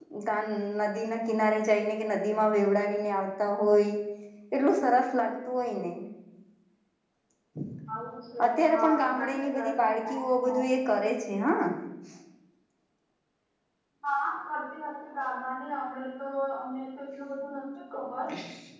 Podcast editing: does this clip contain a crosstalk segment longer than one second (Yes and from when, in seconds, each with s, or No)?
Yes, from 8.4 s